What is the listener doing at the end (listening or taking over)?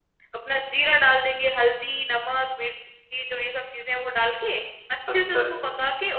listening